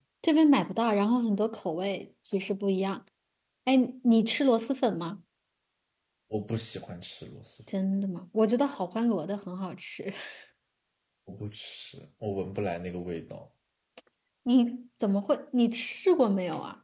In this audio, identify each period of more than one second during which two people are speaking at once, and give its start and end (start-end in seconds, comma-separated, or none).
none